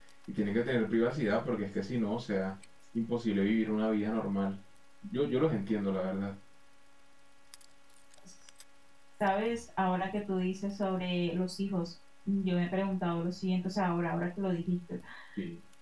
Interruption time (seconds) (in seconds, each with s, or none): none